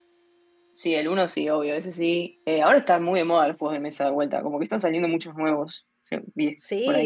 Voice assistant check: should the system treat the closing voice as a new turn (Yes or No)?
Yes